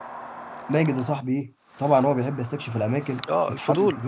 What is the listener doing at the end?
taking over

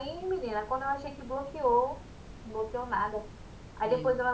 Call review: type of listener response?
listening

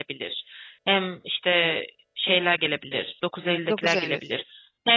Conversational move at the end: listening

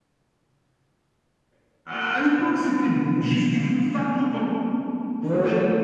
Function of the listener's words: listening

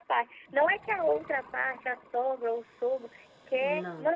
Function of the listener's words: listening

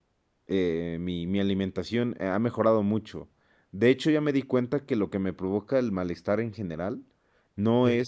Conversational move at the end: listening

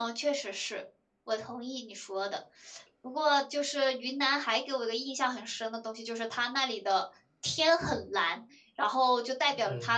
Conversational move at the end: listening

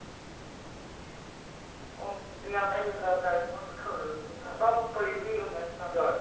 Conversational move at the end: taking over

